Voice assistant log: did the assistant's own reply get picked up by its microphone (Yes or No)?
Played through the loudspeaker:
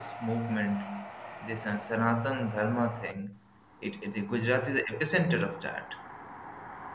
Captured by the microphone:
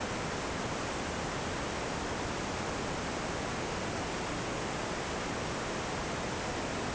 No